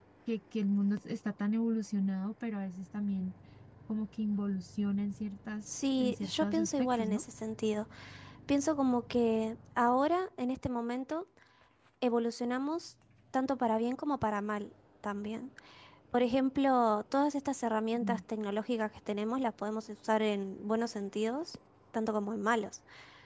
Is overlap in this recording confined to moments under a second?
No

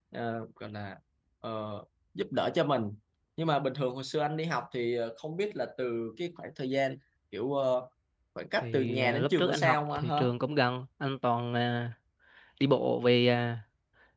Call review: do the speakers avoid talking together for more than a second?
No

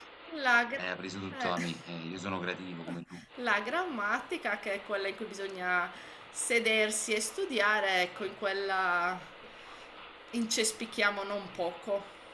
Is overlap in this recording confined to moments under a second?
Yes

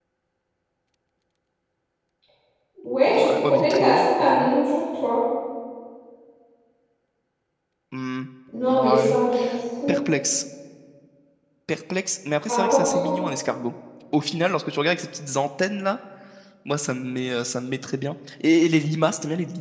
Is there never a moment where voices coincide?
No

